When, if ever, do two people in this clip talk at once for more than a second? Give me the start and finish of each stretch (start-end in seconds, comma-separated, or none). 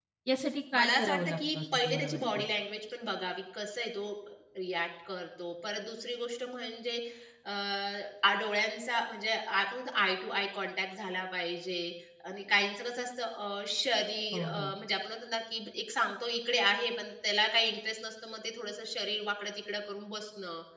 0.8-2.4